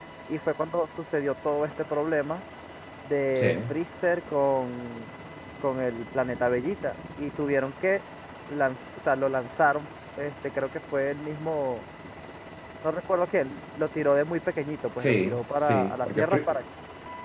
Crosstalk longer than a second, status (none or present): present